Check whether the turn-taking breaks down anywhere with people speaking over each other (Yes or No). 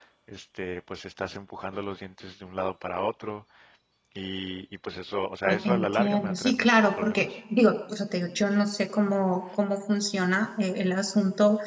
Yes